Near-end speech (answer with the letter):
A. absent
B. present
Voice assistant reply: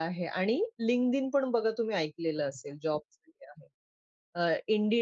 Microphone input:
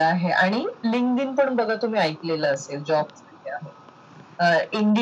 A